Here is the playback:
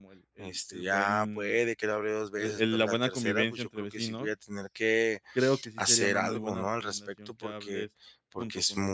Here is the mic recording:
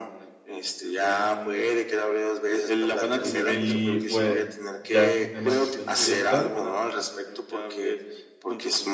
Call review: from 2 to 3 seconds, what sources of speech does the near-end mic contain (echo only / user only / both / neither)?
echo only